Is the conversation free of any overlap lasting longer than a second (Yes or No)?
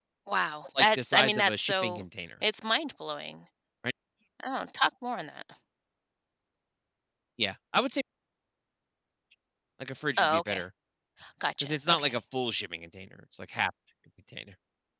No